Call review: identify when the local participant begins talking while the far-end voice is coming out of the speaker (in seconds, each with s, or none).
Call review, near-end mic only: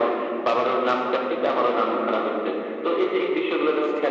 none